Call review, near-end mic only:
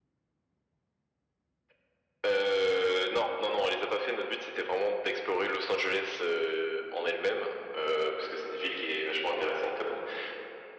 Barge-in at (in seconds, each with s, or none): none